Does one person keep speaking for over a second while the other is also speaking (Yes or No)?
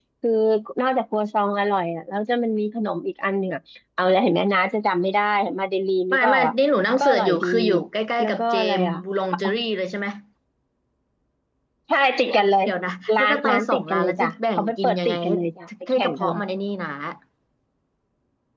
Yes